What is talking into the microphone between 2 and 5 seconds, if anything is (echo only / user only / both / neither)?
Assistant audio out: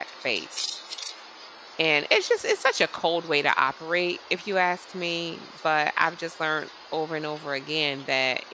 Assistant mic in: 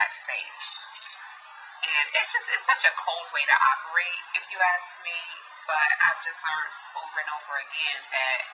echo only